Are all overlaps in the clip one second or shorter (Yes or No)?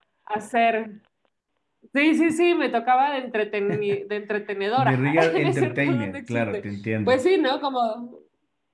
No